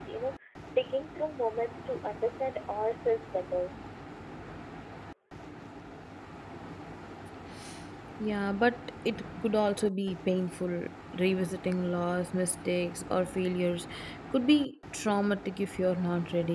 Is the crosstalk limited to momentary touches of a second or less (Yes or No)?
Yes